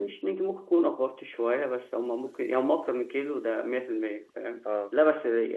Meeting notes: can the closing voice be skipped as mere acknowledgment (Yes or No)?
Yes